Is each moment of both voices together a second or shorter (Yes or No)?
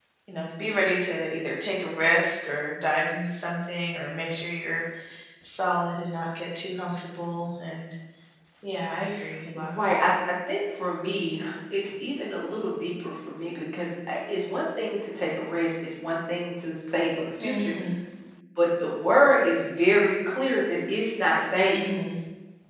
Yes